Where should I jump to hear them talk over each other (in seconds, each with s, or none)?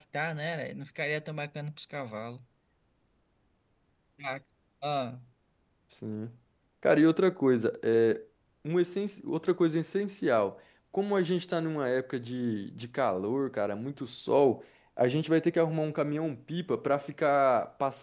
none